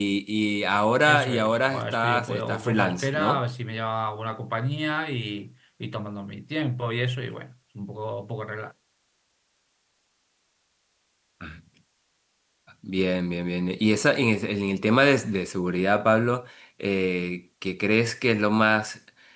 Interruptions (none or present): present